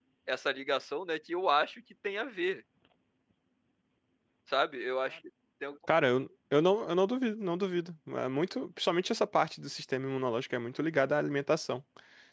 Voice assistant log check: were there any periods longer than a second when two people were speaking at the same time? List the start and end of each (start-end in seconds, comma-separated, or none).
none